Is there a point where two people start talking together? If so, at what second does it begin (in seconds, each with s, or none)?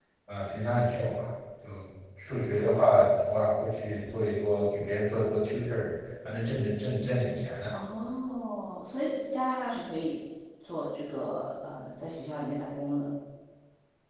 none